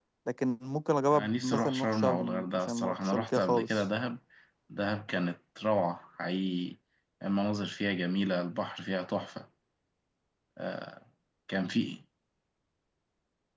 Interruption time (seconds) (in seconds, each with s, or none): 1.1 s